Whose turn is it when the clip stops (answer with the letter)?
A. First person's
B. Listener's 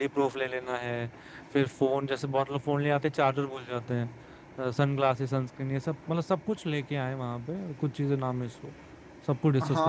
B